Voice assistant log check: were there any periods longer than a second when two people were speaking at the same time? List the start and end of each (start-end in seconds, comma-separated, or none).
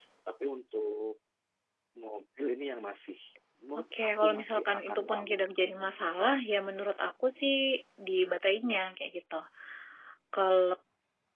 3.8-5.7